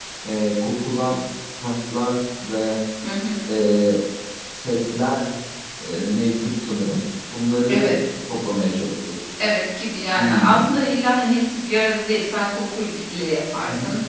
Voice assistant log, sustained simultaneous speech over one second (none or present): none